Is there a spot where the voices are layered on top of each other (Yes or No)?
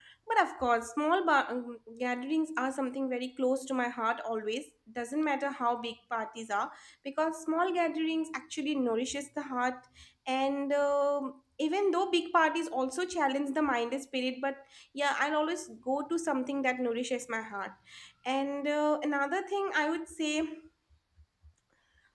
No